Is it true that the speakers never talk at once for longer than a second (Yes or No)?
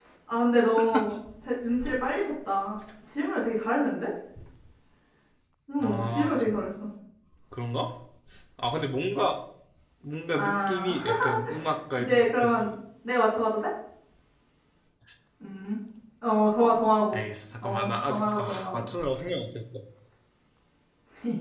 No